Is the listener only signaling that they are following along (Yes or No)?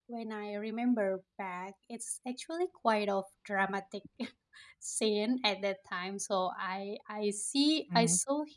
Yes